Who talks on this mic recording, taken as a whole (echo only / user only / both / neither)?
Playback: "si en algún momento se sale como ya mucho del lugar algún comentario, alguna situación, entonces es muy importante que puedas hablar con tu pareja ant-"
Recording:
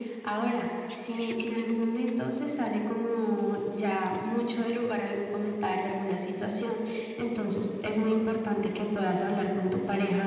echo only